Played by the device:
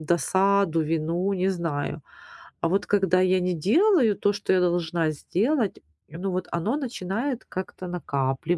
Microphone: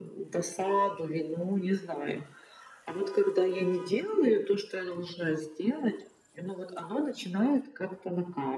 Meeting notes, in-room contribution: none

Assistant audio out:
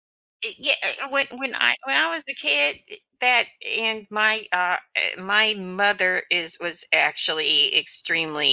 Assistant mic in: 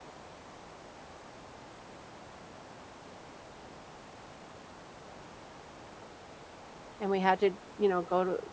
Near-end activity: present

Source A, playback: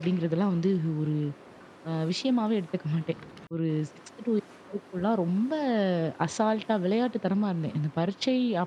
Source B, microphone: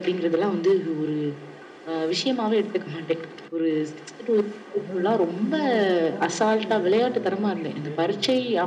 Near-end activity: present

